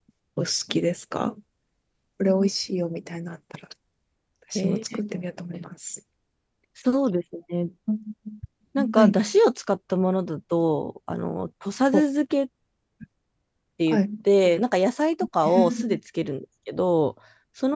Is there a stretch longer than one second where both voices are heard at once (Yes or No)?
No